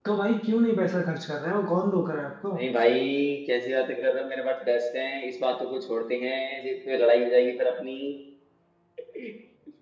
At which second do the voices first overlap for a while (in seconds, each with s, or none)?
none